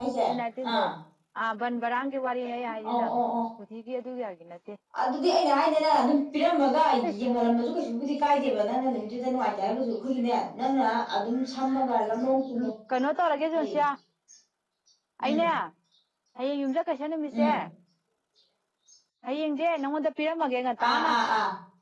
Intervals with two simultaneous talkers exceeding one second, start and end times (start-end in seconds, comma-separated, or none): none